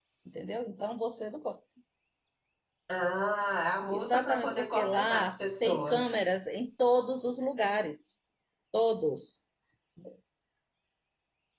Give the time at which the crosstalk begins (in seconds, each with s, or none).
3.9 s